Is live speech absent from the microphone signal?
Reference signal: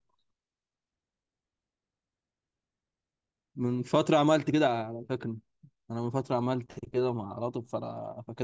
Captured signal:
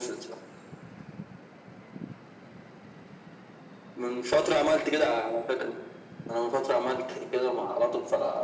Yes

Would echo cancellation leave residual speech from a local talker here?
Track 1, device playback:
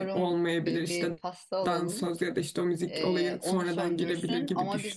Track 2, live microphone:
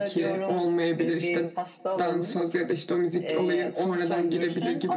No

